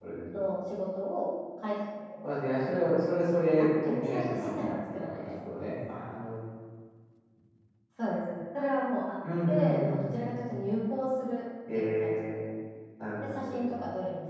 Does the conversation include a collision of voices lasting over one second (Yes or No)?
Yes